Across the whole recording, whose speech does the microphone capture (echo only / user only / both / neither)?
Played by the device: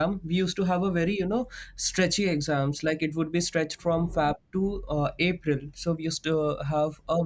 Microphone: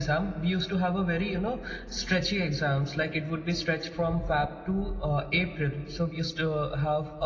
echo only